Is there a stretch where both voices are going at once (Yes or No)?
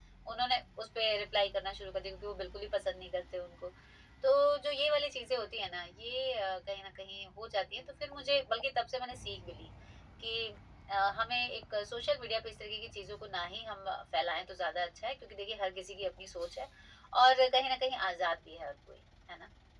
No